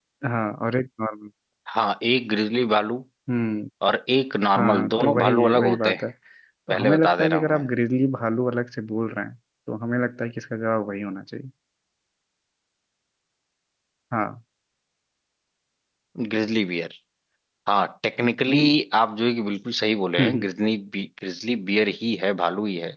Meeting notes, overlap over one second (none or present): present